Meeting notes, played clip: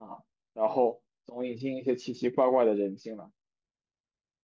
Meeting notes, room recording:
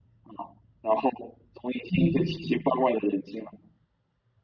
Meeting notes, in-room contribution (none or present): present